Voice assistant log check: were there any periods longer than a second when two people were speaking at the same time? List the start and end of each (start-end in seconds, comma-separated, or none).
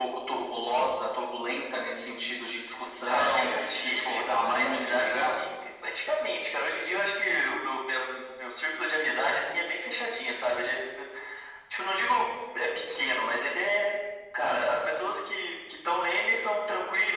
3.1-5.4